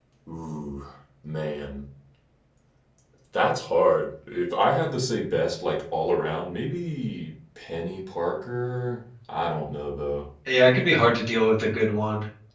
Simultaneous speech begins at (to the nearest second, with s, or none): none